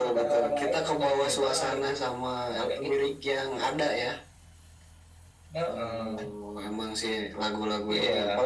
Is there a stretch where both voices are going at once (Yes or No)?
Yes